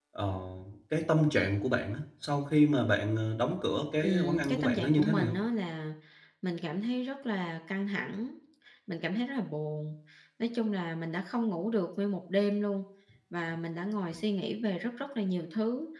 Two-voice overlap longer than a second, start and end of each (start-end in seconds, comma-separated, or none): 4.0-5.4